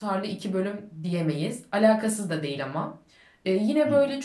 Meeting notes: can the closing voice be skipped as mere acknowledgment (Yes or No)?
Yes